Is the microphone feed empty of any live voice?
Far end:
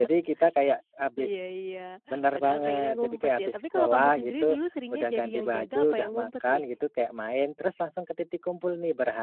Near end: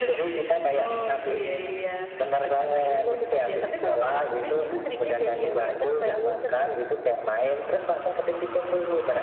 No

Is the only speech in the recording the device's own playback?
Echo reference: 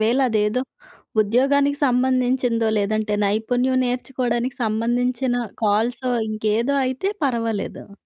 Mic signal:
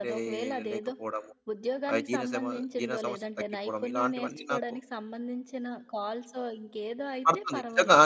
No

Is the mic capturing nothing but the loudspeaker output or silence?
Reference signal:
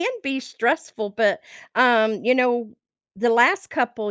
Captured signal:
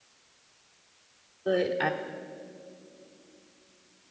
No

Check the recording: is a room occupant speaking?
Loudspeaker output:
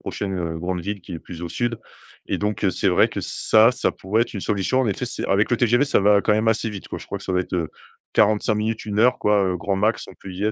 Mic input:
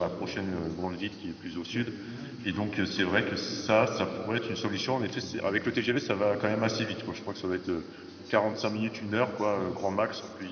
Yes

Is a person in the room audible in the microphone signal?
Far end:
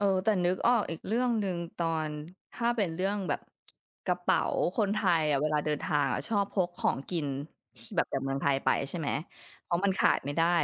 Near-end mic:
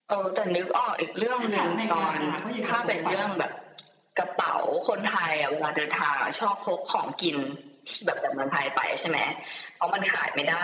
Yes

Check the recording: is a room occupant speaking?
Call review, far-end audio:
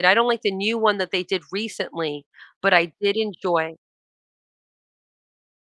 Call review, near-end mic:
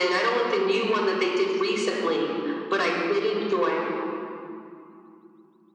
No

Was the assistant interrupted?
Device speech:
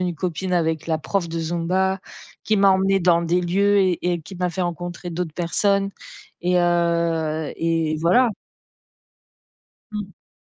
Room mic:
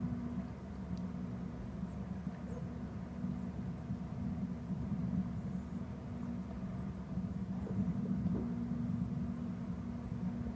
No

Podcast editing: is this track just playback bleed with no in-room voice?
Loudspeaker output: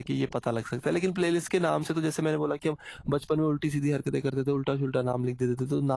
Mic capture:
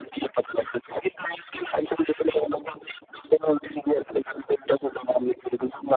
Yes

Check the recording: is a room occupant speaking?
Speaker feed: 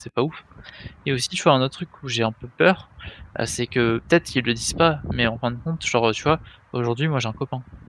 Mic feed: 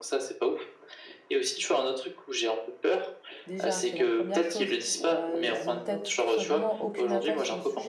Yes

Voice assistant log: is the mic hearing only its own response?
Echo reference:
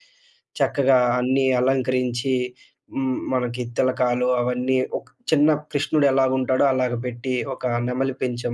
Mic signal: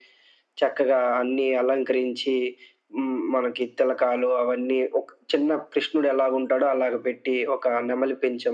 Yes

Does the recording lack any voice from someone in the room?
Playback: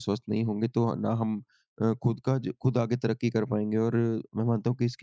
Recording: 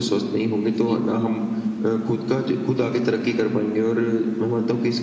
No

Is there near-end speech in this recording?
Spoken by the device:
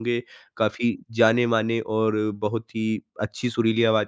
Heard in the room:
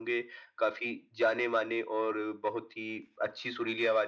No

